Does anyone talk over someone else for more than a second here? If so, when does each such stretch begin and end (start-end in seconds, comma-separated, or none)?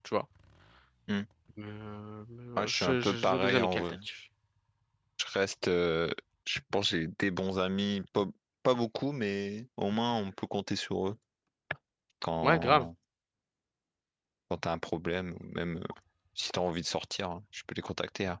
2.6-3.8